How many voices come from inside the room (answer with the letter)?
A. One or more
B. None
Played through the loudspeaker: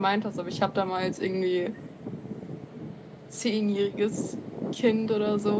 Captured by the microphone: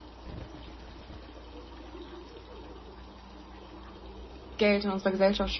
A